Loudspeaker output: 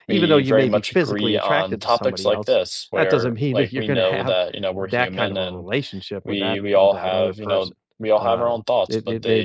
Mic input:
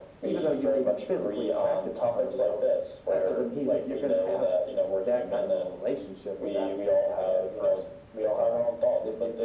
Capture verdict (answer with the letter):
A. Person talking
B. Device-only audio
B